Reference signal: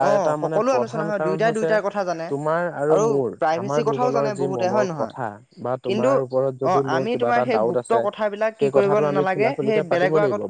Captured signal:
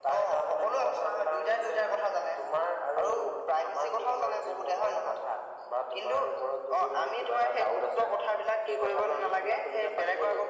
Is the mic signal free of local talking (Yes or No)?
Yes